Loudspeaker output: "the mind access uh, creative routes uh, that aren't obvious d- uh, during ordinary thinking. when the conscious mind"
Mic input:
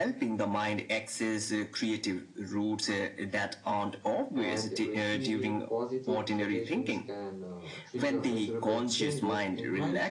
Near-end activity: present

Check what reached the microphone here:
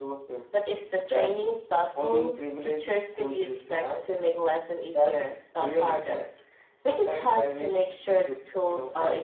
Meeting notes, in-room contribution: none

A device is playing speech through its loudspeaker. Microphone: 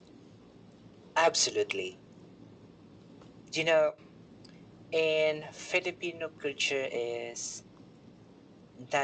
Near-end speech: none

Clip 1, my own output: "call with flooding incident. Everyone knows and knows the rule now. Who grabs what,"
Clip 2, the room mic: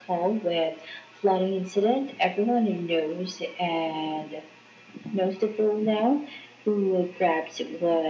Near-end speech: none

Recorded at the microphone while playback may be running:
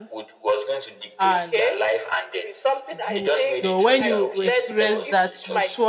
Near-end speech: present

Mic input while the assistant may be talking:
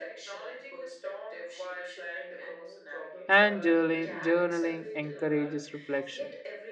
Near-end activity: present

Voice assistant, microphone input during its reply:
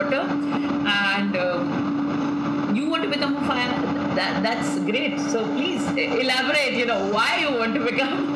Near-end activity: none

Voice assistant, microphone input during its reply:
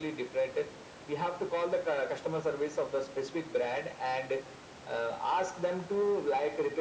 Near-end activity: none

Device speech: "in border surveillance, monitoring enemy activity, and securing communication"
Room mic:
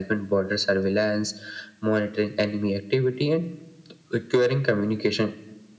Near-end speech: none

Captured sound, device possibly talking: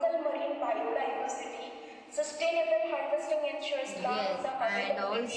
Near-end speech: present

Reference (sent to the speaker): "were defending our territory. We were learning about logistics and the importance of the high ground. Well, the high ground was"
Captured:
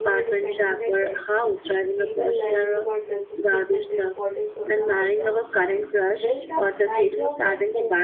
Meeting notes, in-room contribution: present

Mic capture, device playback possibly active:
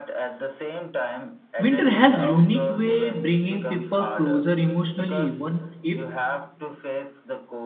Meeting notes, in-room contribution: present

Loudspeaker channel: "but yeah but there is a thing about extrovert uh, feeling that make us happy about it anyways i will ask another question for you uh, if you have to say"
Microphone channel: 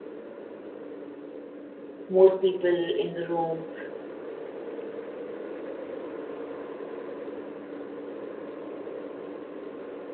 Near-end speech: present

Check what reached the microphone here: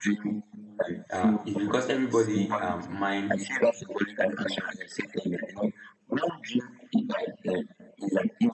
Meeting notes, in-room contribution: present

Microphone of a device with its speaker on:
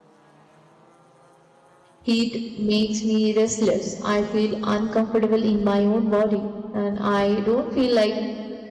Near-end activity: present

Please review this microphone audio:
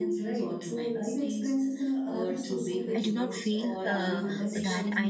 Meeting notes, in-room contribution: present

